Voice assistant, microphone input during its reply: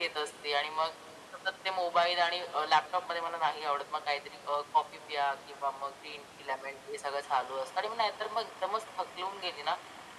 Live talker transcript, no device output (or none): none